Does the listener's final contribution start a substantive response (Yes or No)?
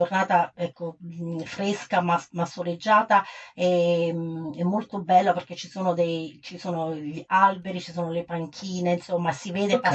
No